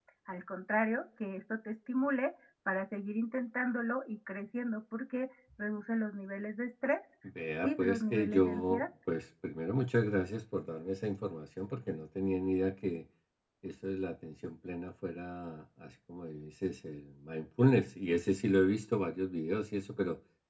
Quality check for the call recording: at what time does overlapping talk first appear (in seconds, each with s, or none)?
7.6 s